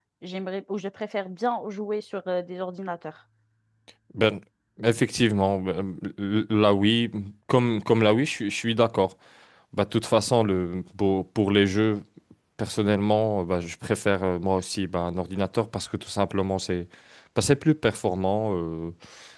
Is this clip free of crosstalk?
Yes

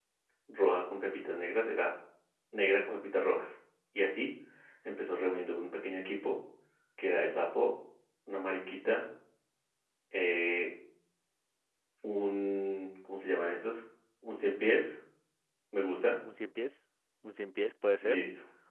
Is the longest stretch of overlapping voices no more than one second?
Yes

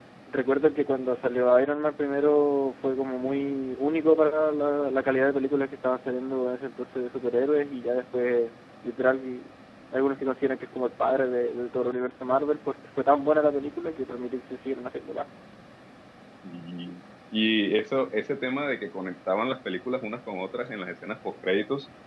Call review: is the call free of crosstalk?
Yes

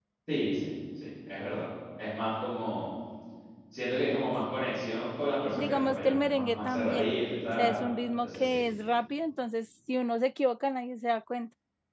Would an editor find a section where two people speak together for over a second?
Yes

